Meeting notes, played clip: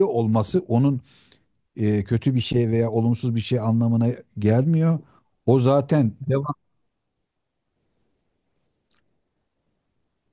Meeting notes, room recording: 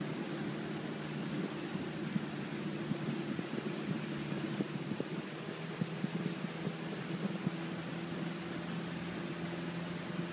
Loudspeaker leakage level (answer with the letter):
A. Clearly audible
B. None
B